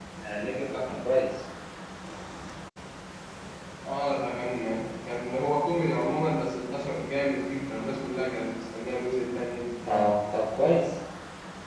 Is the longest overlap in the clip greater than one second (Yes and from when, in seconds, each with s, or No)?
No